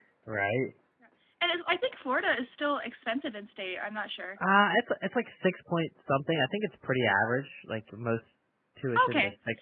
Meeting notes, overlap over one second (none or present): none